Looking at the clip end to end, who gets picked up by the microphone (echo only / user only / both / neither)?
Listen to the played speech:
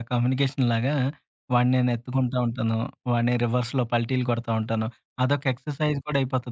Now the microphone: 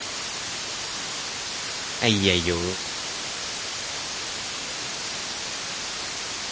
user only